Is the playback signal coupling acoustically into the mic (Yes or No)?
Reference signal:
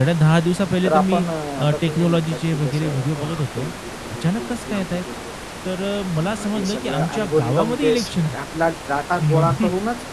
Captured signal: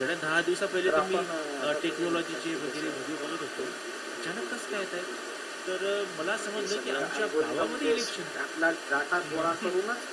Yes